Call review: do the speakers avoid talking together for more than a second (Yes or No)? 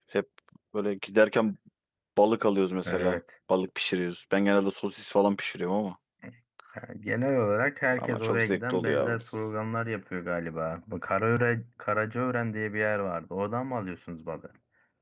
No